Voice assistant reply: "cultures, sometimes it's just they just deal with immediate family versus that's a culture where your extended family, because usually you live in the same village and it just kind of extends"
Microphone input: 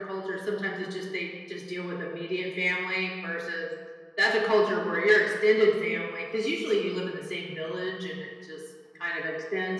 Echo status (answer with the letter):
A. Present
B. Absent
A